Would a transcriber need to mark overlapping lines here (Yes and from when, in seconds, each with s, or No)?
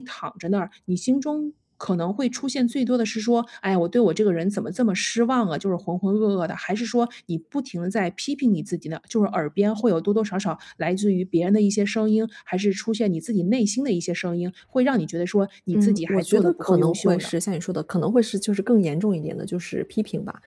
Yes, from 15.7 s